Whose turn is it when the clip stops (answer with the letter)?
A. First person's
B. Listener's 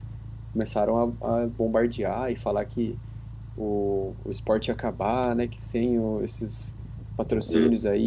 A